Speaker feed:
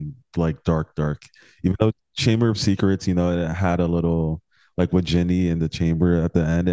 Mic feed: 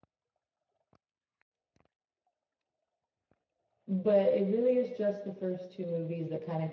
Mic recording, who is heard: user only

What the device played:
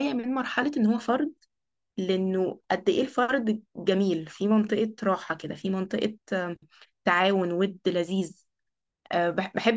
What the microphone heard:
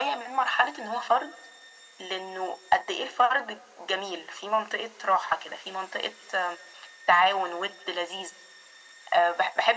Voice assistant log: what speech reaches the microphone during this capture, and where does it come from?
echo only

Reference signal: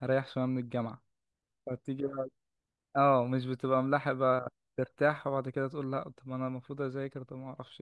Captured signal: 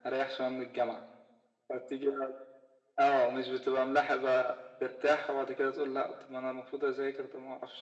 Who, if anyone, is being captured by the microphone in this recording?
echo only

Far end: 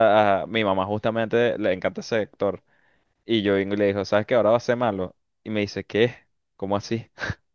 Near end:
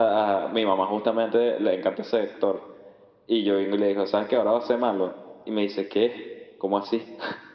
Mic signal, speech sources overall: echo only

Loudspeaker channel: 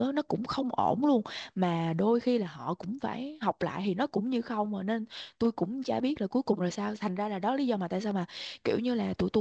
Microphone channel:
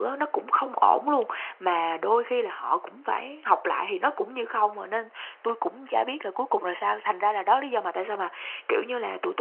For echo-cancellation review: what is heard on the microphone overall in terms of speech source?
echo only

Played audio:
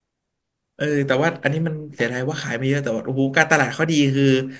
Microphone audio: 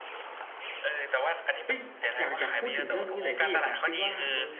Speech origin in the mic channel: both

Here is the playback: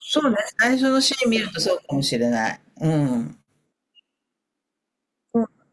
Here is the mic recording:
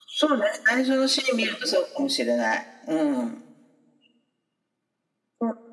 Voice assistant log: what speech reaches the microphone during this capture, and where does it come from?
echo only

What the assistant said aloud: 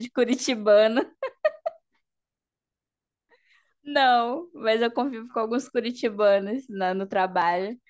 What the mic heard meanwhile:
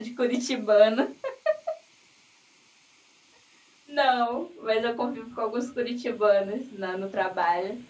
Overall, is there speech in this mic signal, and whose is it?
echo only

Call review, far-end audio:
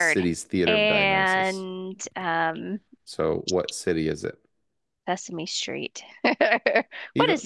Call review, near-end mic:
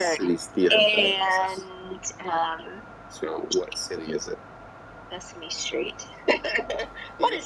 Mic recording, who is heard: echo only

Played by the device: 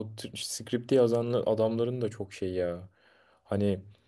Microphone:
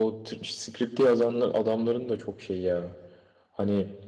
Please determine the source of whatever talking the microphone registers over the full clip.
echo only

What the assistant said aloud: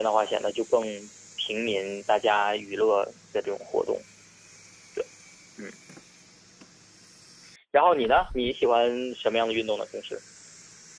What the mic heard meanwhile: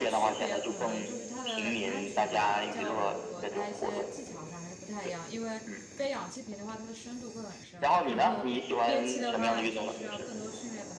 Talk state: both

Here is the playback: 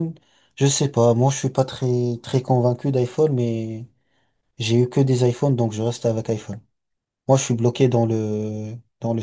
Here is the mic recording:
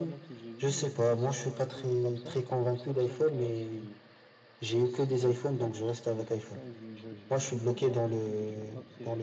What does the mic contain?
both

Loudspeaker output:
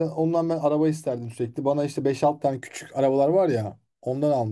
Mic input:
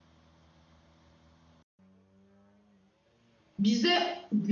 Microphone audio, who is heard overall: user only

